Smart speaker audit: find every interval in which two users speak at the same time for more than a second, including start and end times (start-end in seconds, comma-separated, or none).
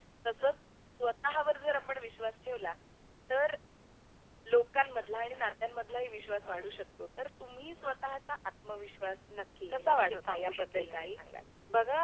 9.7-11.1